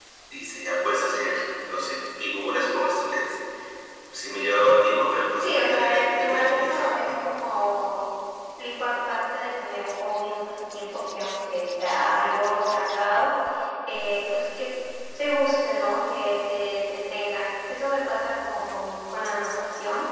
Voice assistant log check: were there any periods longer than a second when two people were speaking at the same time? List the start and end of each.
5.4-6.8

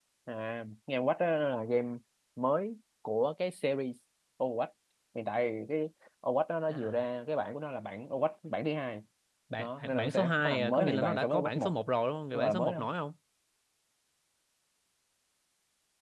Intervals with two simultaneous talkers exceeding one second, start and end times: 9.6-11.7

